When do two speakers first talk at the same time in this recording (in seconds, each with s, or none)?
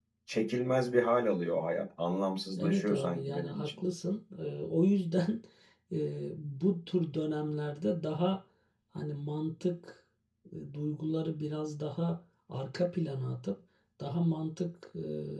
2.6 s